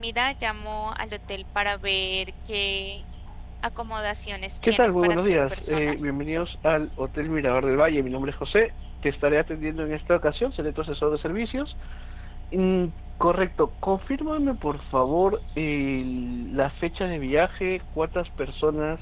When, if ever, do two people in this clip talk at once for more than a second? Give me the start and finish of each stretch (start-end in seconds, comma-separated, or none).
4.6-6.1